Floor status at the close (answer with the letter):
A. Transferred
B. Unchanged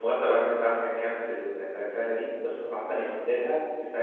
B